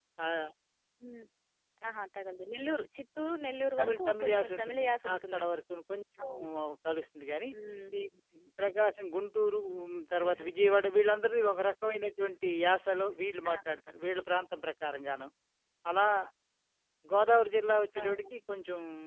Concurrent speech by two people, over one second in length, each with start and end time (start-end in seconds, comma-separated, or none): 3.8-5.4